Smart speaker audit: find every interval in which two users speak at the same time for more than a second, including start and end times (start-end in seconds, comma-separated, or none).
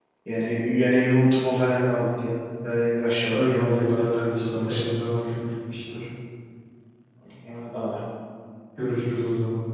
3.3-5.0